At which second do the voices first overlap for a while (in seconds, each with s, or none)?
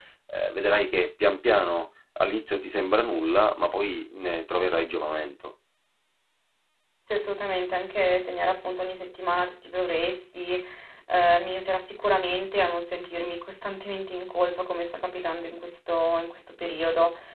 none